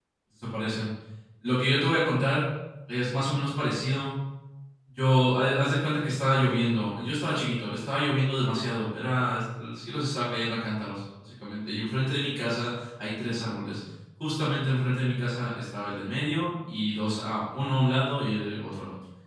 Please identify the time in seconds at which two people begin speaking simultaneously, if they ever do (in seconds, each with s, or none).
none